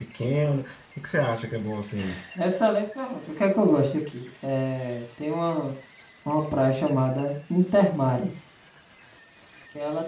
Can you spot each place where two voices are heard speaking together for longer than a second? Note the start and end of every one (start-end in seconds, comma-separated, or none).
none